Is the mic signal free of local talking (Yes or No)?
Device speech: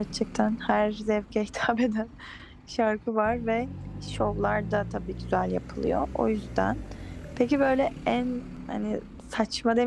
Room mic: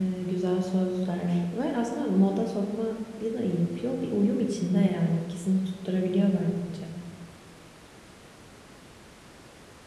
No